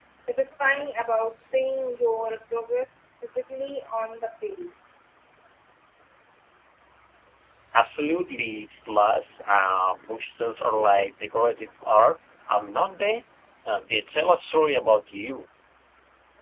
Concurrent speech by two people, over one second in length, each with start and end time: none

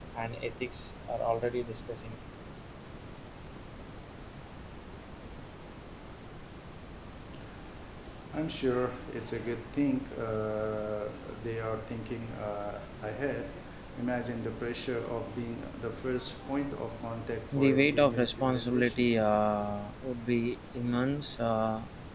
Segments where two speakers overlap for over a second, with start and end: 17.5-19.2

